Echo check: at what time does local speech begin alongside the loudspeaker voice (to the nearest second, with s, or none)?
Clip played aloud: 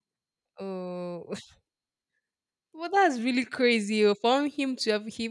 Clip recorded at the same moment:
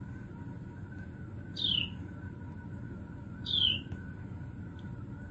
none